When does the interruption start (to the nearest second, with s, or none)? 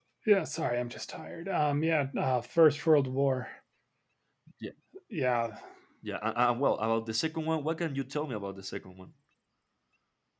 none